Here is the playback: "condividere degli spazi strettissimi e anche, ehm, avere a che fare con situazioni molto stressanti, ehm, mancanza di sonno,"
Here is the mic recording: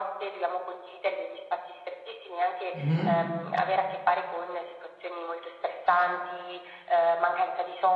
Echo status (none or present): present